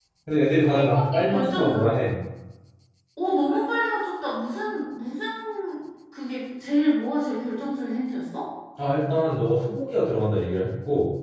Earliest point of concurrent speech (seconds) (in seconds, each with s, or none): 0.6 s